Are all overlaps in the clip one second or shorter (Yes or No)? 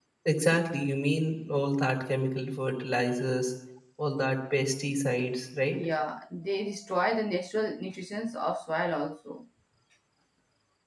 Yes